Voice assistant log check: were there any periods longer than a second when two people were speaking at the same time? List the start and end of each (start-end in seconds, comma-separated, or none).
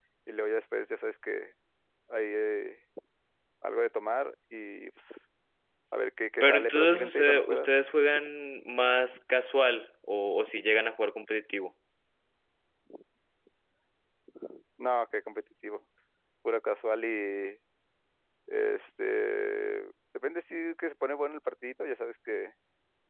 6.4-7.7